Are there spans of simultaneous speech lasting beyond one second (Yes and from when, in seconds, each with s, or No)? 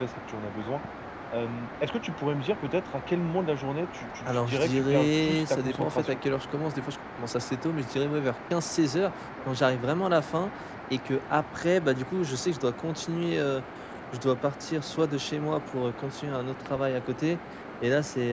Yes, from 4.3 s